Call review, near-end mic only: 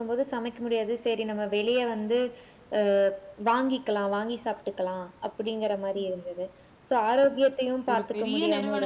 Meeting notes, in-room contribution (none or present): present